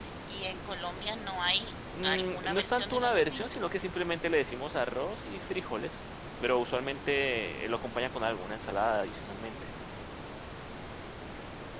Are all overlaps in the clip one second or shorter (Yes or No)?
No